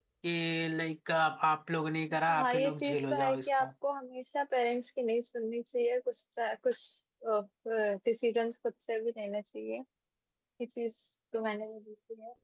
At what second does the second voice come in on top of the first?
2.3 s

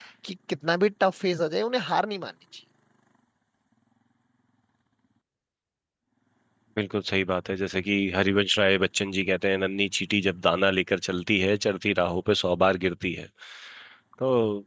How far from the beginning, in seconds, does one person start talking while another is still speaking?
none

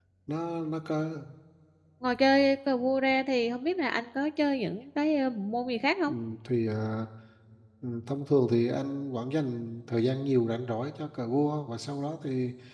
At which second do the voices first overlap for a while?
none

